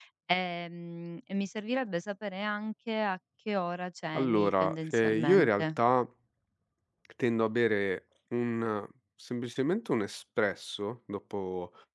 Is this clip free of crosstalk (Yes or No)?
No